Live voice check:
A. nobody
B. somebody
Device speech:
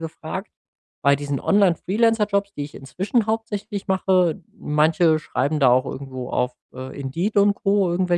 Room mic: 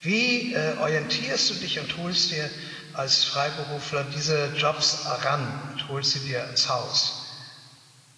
B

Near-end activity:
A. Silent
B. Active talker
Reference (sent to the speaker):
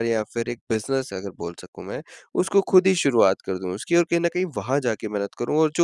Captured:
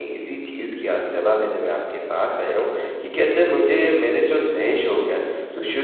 B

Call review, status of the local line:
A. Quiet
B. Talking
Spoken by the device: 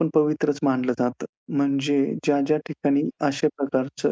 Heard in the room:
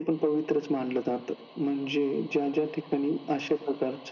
A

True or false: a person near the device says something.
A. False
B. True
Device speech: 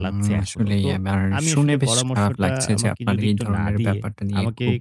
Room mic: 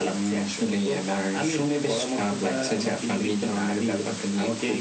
A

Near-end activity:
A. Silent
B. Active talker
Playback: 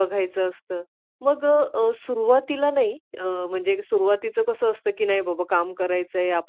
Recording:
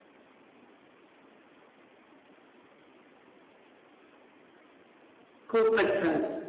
B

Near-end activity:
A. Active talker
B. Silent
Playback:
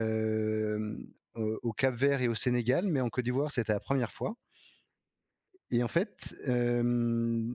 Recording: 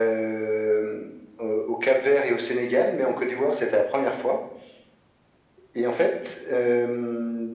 B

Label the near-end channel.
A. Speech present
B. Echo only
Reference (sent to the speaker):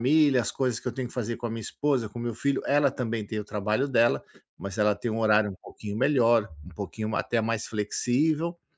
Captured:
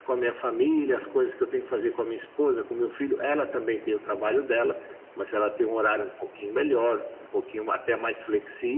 B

